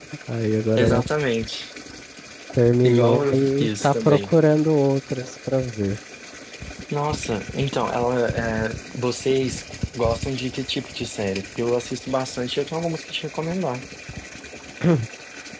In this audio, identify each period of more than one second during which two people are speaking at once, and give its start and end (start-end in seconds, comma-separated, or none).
2.8-4.3